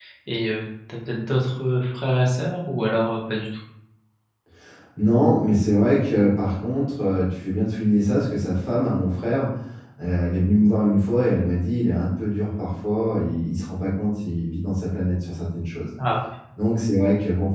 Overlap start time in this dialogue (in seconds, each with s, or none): none